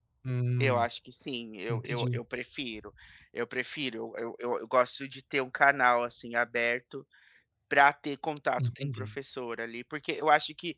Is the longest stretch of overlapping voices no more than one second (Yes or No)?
Yes